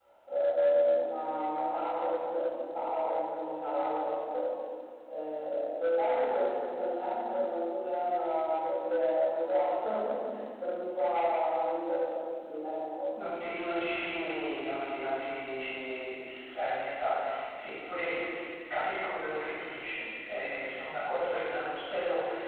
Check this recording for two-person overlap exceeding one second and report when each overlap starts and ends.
none

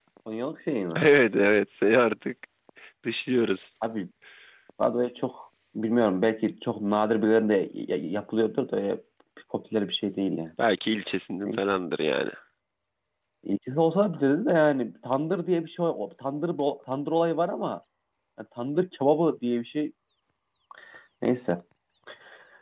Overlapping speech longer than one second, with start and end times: none

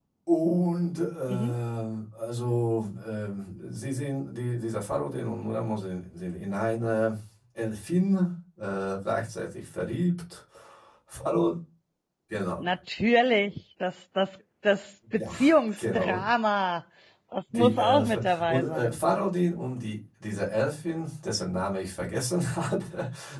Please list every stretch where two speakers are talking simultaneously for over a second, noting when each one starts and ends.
17.5-19.0

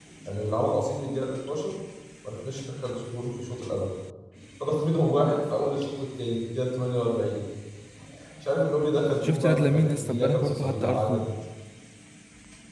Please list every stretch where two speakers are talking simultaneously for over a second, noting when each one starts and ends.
9.2-11.2

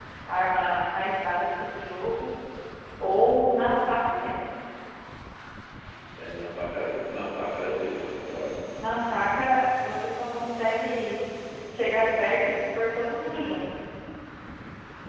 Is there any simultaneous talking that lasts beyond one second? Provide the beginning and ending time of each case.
none

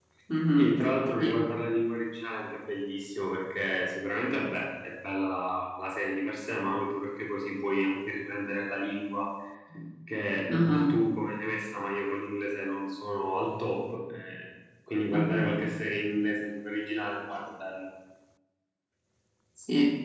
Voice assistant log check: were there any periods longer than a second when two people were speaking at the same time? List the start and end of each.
none

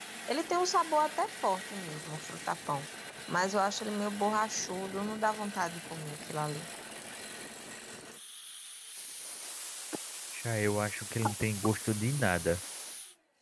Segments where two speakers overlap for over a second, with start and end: none

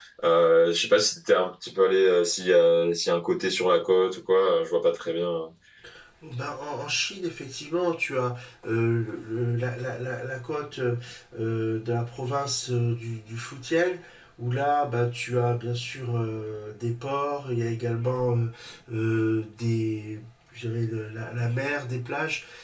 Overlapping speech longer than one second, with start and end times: none

